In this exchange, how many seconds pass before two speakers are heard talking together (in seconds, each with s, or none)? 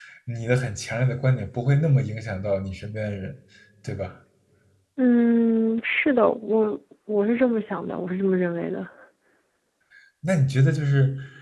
none